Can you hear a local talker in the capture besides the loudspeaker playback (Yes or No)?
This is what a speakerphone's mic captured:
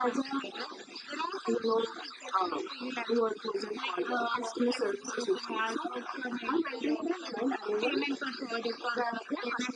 No